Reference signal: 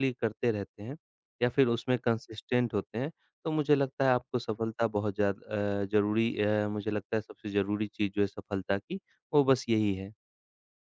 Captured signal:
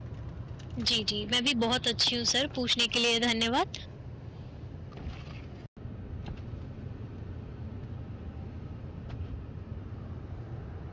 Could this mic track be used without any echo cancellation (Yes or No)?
Yes